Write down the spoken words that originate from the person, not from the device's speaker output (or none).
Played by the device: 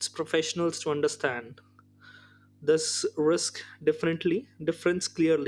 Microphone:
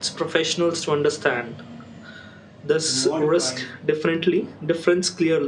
to modify